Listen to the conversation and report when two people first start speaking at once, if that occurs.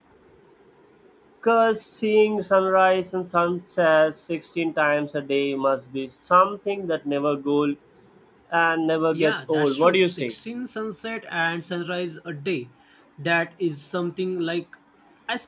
9 s

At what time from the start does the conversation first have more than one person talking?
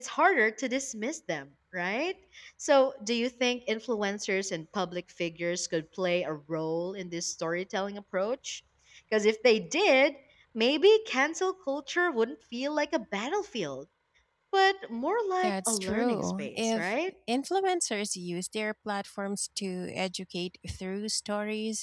15 s

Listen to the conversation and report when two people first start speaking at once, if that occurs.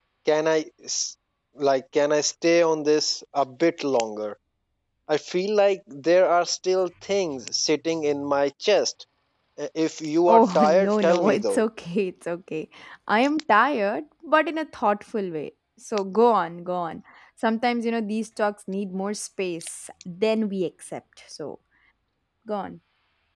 10 s

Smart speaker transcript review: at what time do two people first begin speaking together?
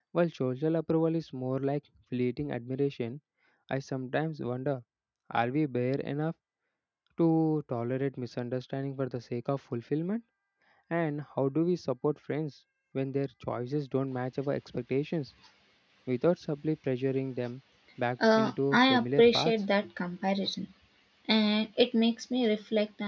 18 s

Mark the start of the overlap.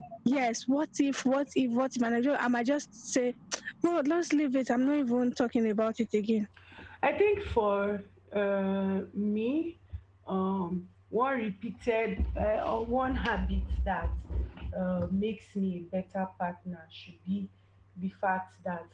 none

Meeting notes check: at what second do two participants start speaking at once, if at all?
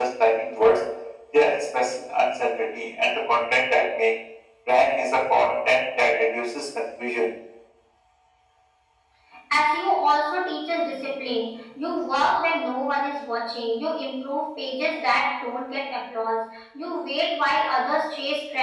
none

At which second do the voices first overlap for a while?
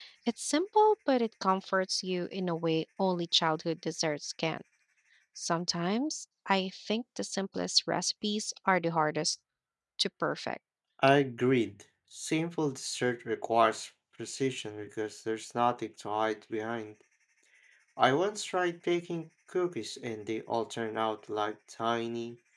none

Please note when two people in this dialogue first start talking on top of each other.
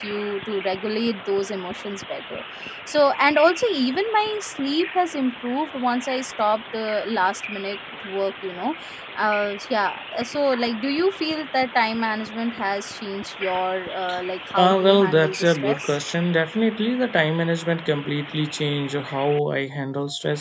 15 s

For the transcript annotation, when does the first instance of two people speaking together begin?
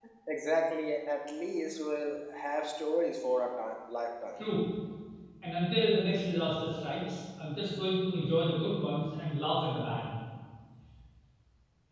none

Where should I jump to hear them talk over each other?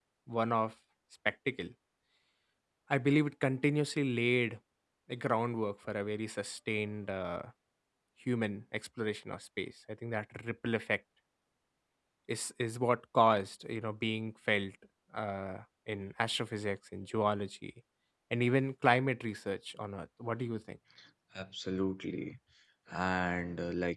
none

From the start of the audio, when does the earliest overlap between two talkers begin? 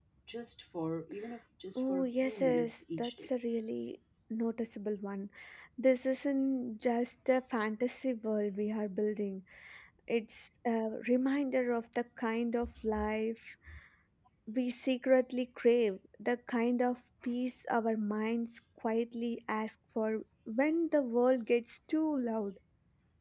2 s

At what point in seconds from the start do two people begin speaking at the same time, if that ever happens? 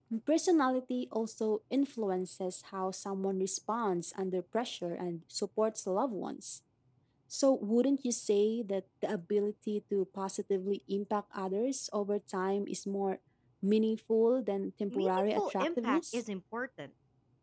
15 s

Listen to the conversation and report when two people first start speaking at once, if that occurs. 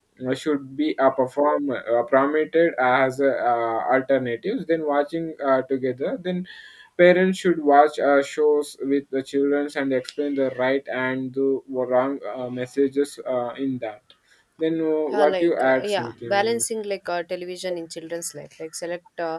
15 s

